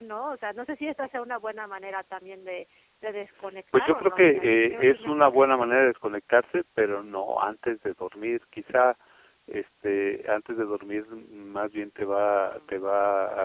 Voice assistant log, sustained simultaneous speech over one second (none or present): present